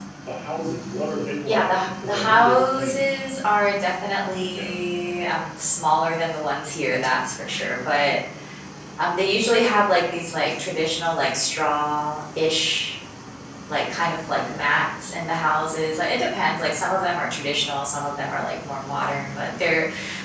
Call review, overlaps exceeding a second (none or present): present